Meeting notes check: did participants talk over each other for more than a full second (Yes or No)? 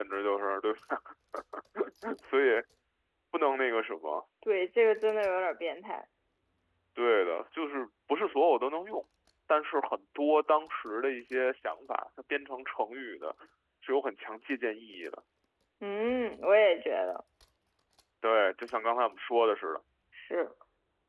No